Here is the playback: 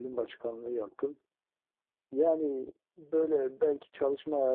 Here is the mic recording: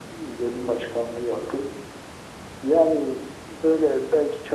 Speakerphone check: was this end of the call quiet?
Yes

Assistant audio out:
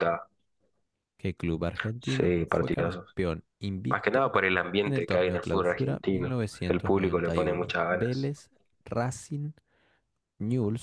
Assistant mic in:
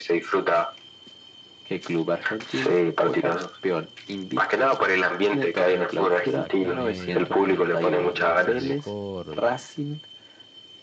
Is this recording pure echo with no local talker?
No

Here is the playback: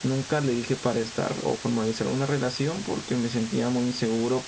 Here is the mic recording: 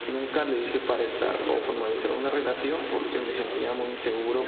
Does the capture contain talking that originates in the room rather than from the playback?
Yes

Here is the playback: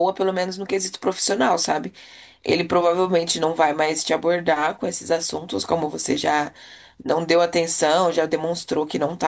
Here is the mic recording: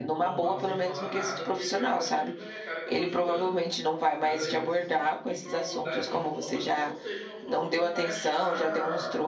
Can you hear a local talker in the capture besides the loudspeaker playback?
Yes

